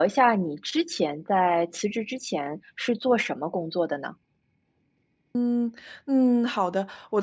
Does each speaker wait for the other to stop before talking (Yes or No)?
Yes